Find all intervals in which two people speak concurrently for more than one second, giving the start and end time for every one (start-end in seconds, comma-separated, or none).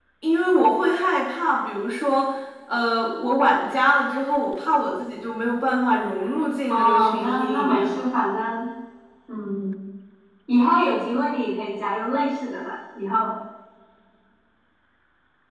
6.7-8.1